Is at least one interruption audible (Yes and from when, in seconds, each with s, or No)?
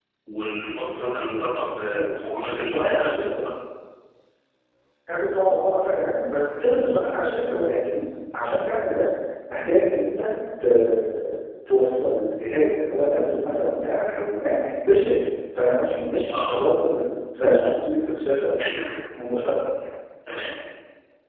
Yes, from 1.9 s